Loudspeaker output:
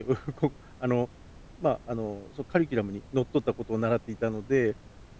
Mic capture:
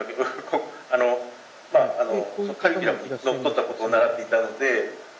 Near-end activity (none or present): present